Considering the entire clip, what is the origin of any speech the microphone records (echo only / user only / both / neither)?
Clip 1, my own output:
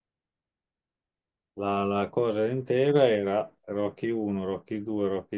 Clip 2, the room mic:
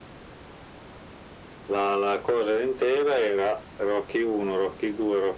echo only